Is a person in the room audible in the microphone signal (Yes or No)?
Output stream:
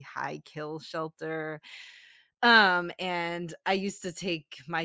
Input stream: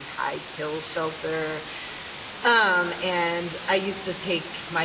No